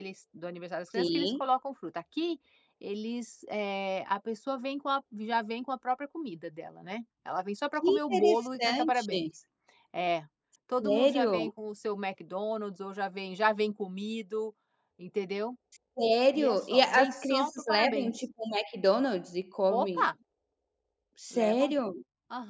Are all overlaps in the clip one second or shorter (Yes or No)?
No